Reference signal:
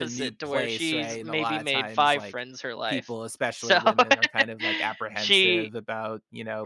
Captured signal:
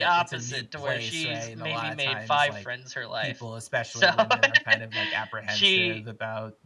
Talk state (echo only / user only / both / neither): echo only